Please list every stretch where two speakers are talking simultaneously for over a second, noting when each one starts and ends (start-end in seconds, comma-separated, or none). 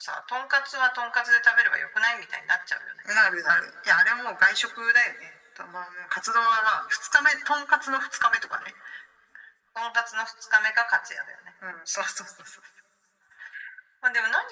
none